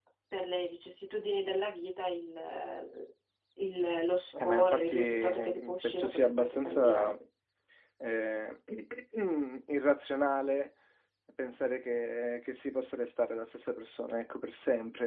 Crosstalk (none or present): present